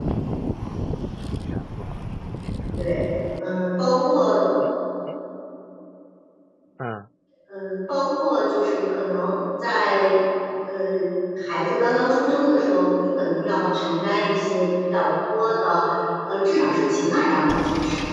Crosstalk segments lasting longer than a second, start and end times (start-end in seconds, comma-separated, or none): none